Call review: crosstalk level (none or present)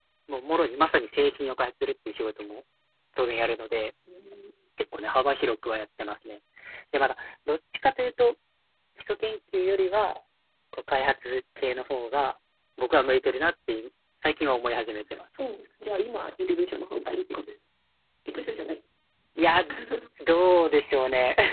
none